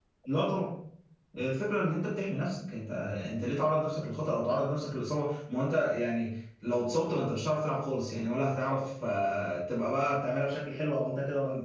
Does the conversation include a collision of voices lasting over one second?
No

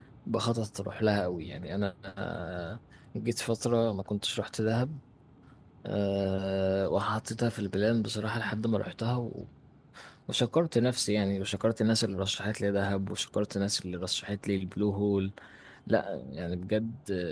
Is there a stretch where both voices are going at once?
No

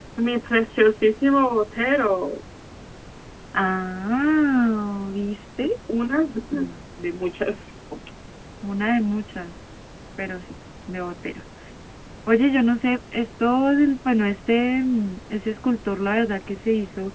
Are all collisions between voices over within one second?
Yes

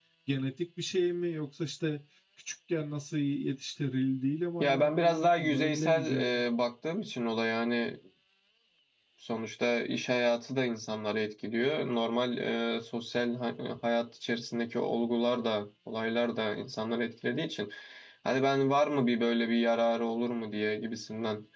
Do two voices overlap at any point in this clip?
Yes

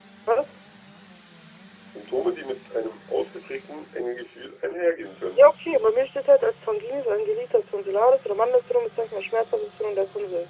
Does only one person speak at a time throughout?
Yes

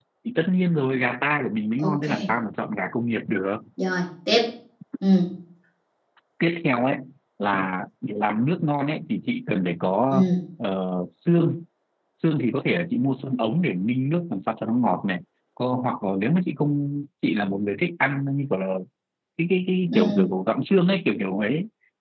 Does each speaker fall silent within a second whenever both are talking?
Yes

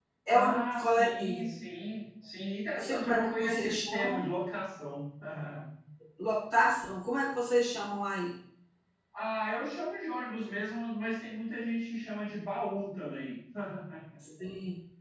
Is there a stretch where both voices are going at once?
Yes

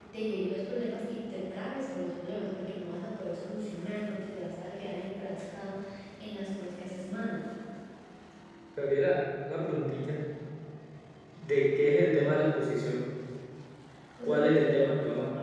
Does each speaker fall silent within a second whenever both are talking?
No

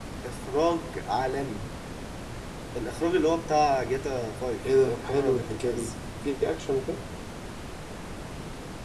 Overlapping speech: Yes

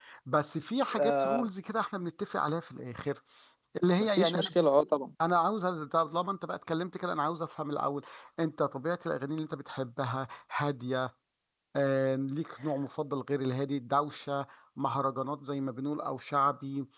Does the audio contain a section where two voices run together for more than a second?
No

